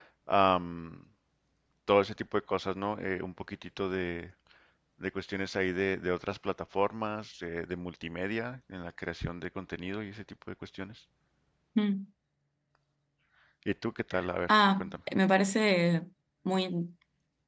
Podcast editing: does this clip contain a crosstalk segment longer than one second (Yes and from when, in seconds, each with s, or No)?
No